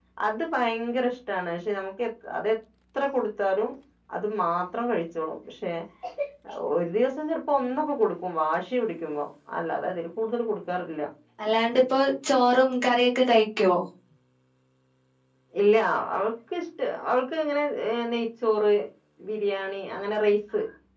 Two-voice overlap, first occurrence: none

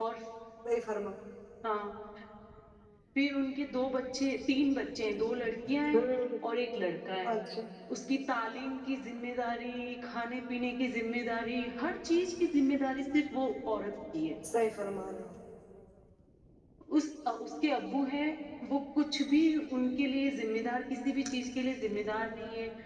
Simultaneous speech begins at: none

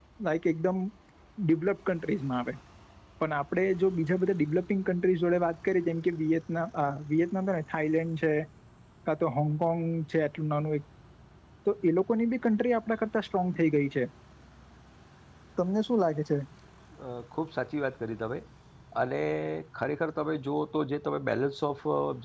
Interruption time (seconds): none

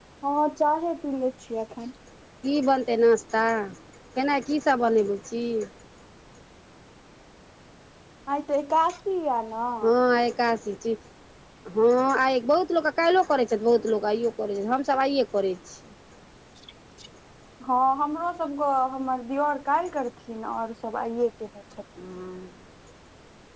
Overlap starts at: none

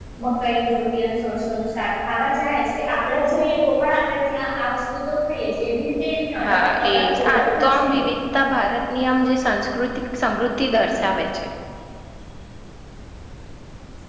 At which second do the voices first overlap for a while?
6 s

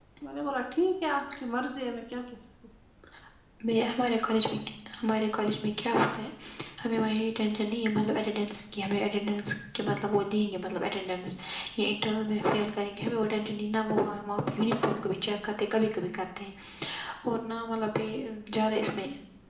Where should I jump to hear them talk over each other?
none

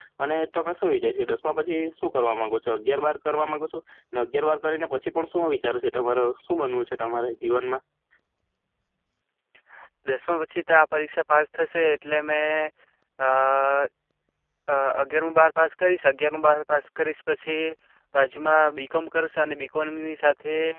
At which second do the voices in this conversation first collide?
none

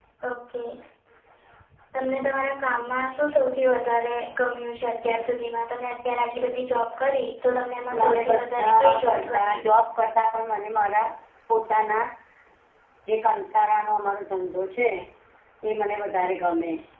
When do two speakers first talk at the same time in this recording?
8 s

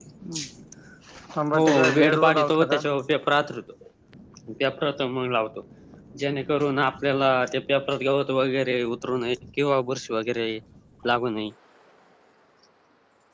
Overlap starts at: 2 s

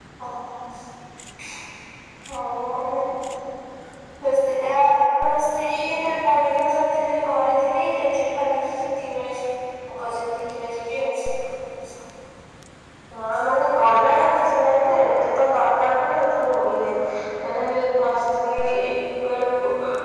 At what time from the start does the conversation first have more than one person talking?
none

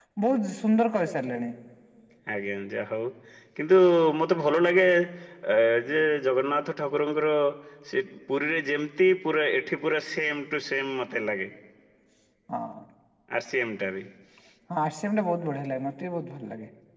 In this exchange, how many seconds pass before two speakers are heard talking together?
none

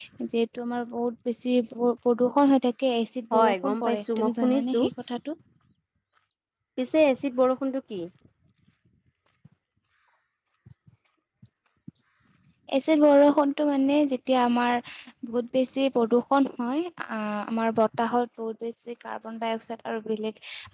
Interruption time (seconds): 3 s

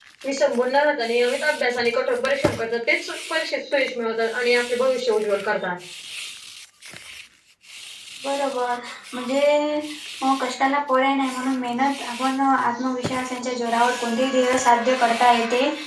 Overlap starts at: none

